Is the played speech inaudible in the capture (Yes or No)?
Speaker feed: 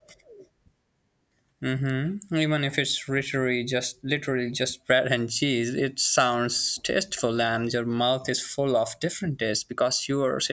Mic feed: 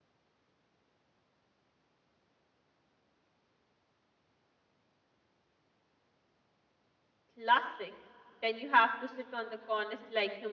Yes